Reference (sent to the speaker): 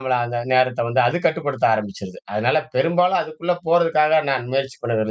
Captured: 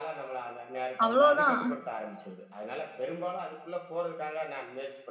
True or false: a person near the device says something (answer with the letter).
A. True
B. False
A